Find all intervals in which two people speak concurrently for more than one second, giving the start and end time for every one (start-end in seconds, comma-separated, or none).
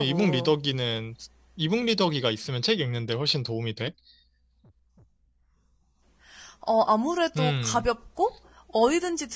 none